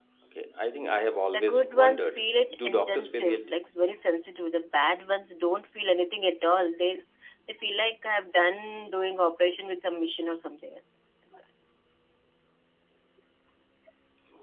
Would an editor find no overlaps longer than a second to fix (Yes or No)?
No